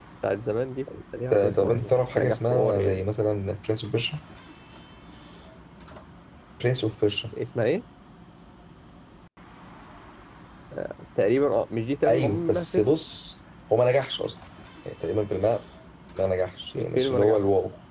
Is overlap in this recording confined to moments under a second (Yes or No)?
No